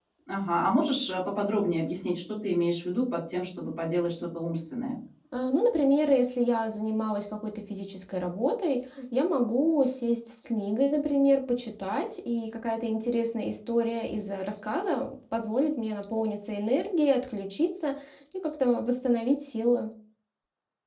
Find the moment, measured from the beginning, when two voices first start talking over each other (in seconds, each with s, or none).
none